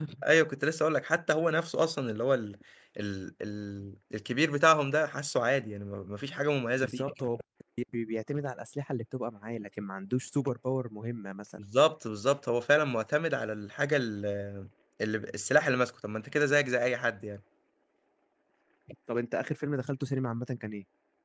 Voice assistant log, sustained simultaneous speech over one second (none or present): none